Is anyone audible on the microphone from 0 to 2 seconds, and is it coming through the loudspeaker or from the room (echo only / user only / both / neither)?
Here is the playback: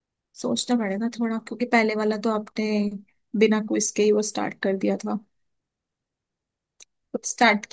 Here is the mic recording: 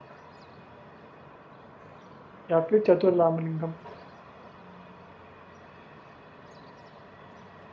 neither